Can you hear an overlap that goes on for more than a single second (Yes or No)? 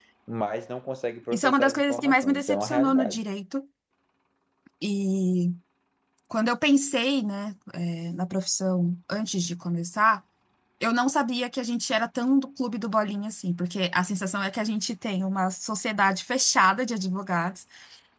Yes